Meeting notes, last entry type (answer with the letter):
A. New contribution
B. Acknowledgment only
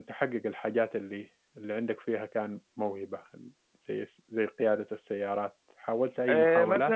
A